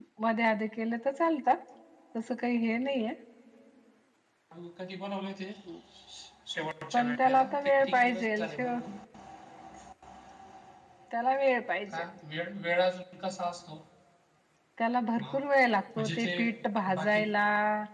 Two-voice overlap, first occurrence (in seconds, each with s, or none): 6.9 s